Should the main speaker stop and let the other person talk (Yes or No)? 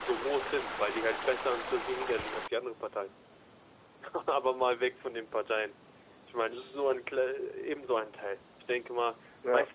No